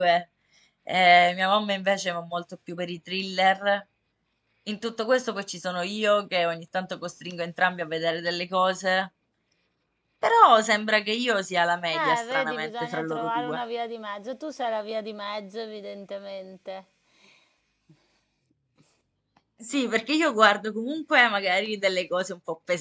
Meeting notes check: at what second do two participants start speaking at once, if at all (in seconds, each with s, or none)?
11.9 s